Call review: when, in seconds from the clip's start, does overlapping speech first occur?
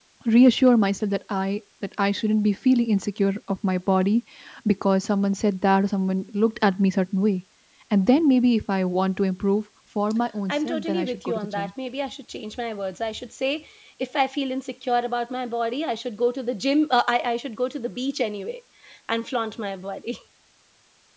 10.5 s

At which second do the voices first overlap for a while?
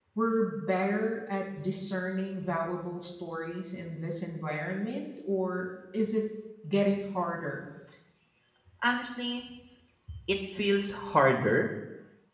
none

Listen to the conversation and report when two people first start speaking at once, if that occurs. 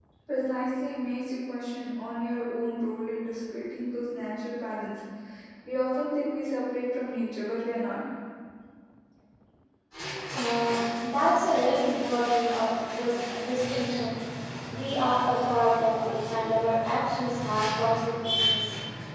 none

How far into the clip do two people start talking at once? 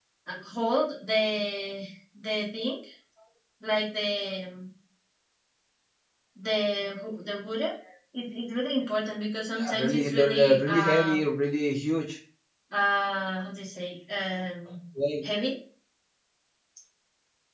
9.6 s

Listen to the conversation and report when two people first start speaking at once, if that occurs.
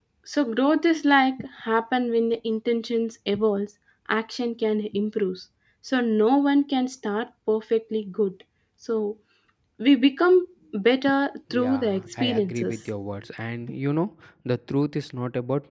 11.5 s

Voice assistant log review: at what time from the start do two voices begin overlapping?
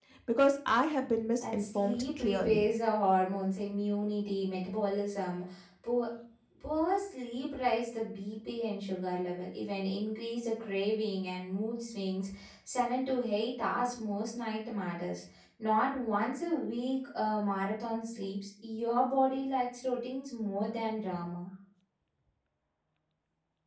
1.4 s

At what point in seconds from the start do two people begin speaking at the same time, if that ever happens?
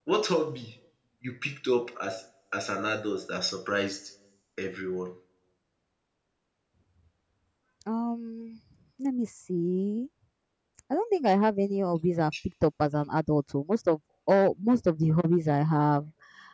none

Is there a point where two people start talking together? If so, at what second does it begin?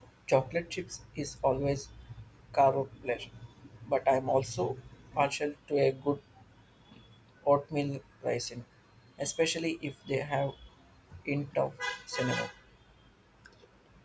none

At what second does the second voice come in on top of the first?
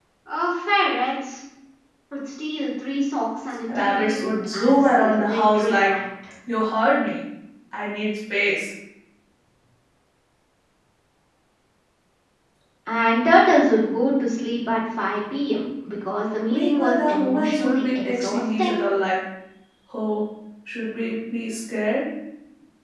3.8 s

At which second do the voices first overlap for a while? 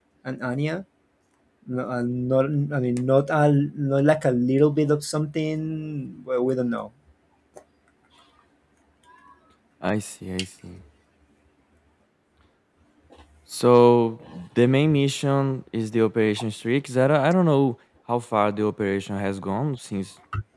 none

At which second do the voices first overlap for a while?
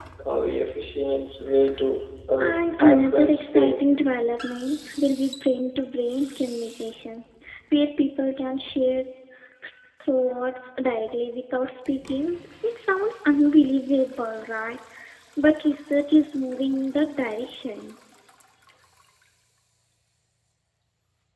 2.4 s

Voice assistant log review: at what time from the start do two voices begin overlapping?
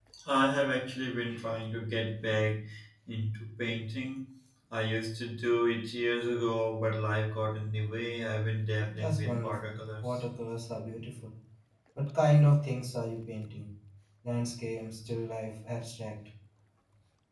8.9 s

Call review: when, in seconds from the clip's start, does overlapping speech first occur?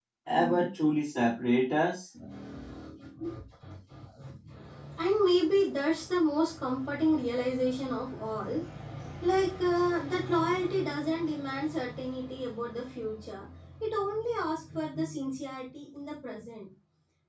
none

